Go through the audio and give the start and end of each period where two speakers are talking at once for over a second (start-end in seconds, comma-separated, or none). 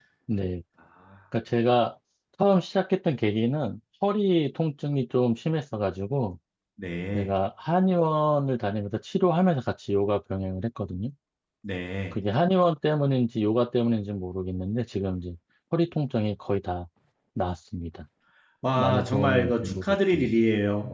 18.8-20.2